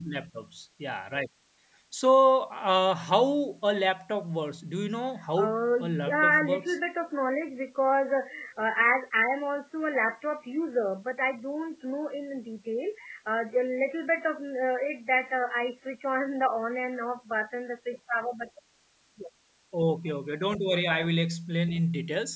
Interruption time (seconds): 5 s

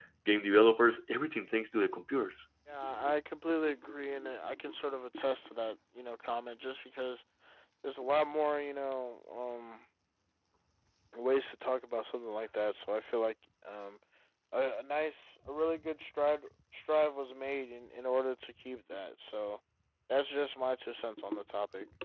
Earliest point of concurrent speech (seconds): none

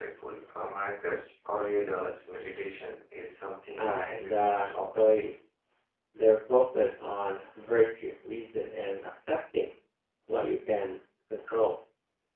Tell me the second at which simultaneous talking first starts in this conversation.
4 s

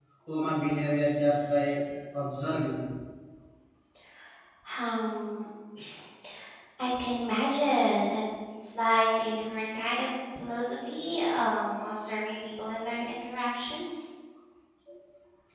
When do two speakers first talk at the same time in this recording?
none

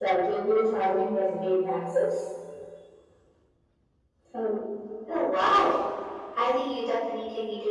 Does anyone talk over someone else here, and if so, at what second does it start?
none

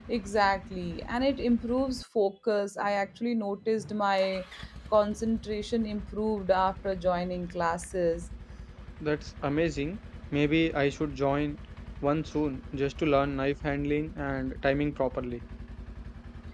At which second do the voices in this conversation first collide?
none

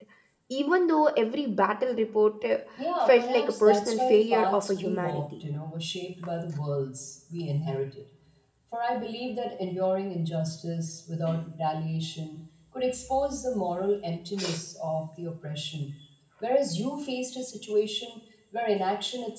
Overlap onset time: 3 s

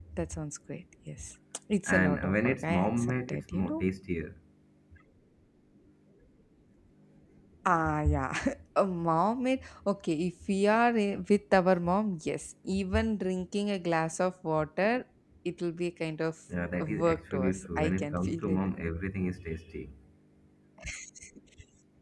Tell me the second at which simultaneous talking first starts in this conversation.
2 s

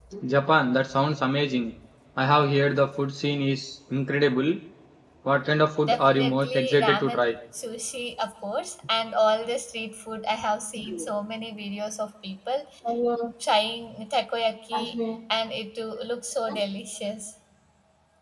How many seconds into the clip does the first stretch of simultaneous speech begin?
6 s

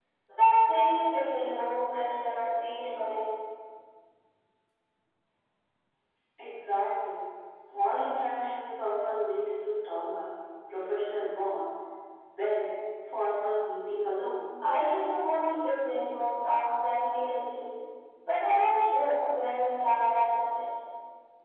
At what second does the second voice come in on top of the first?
none

